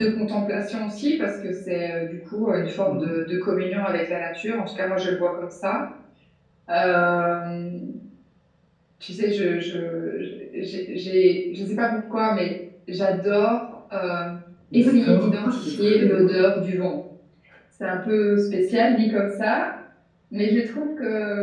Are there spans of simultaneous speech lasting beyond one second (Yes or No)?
Yes